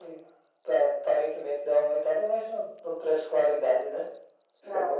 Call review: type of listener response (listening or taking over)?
taking over